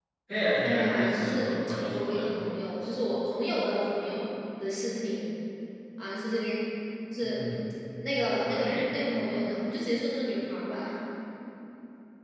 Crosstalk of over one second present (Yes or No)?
Yes